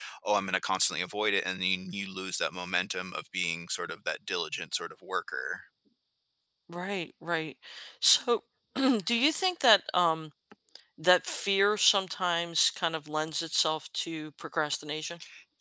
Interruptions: none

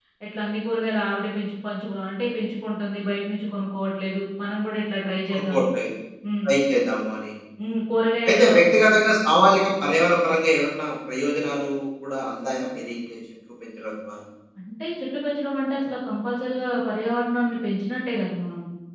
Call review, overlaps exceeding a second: none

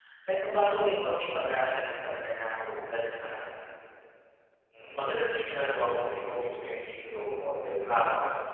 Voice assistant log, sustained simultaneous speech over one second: none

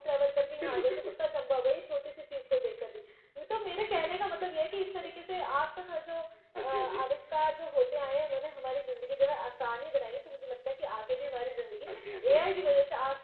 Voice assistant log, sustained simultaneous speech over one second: none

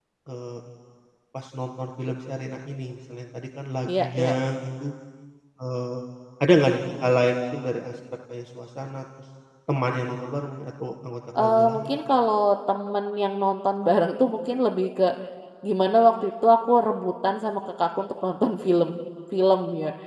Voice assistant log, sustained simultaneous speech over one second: none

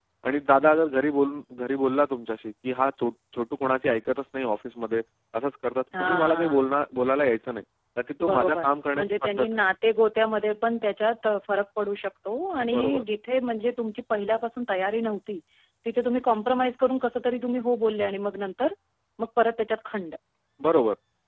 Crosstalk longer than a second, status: present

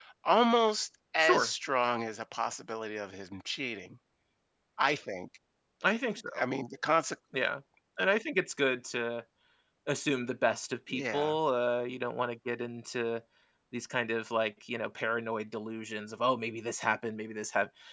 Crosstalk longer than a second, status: none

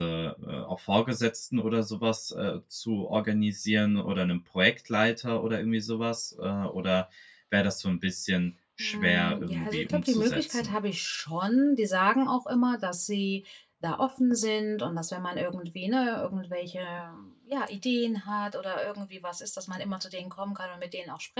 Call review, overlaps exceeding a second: present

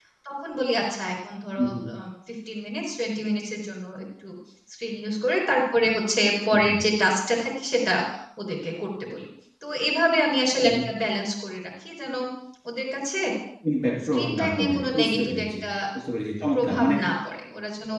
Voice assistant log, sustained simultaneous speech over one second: present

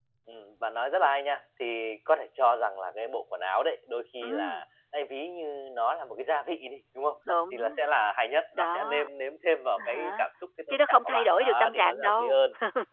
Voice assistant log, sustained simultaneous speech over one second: present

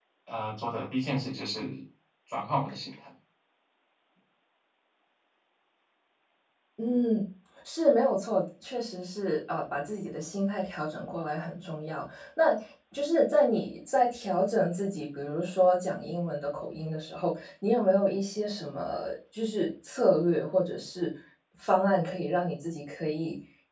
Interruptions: none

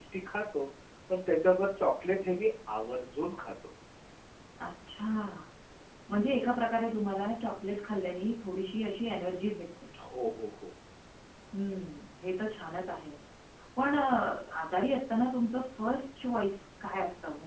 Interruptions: none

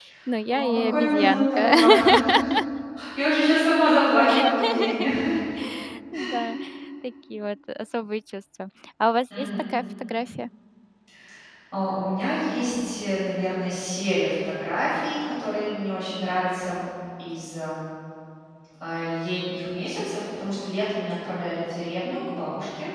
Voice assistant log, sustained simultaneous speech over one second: present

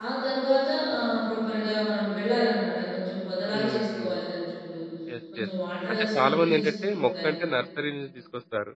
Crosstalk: present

